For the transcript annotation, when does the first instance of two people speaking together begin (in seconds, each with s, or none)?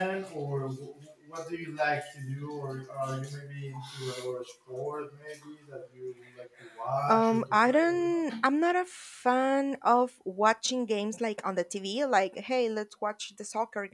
7.0 s